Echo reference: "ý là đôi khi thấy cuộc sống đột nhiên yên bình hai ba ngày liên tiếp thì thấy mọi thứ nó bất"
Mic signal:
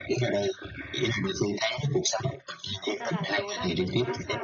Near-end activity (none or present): present